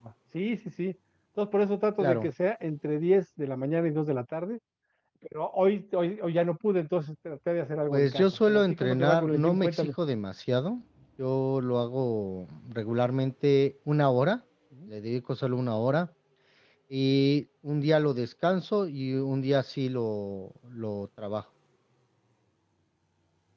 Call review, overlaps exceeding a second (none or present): present